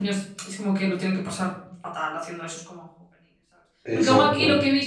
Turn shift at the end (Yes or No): No